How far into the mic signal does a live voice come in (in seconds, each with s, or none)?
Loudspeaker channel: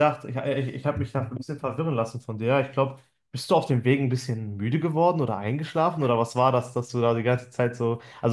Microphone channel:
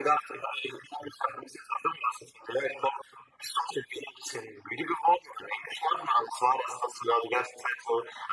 none